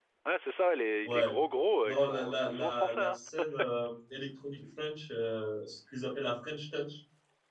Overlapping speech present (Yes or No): Yes